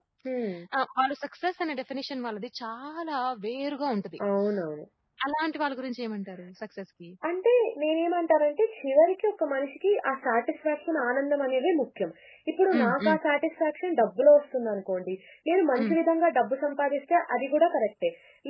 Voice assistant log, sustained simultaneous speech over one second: none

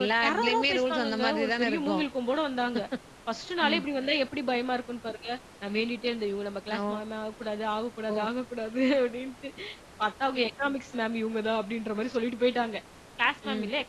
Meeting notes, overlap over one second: present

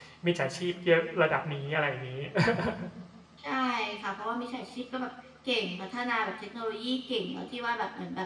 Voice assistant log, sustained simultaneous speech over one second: none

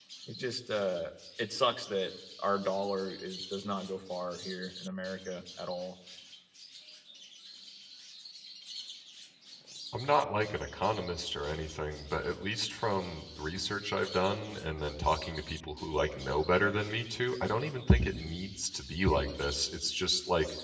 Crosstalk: none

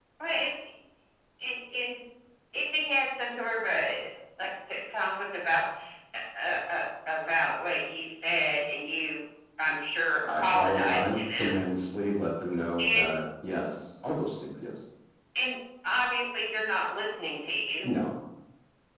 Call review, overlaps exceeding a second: present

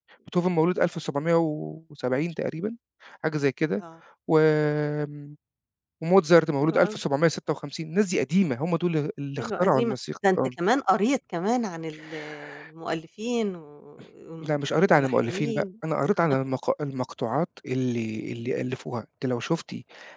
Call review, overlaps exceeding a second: present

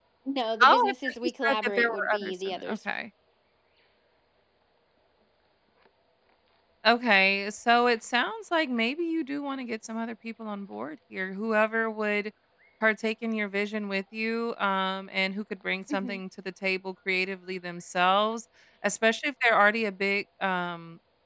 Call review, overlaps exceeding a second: present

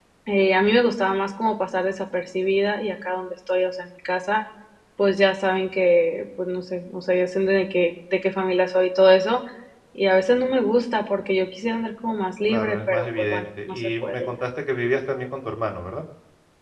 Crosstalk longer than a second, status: present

